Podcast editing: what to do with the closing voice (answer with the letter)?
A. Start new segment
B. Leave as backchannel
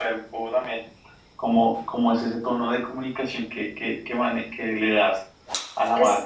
B